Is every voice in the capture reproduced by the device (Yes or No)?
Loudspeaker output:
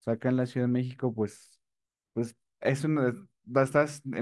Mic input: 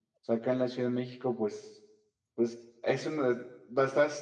Yes